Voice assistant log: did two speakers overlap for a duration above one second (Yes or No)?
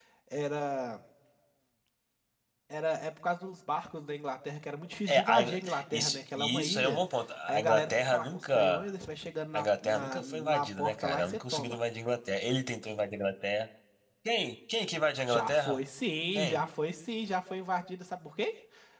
Yes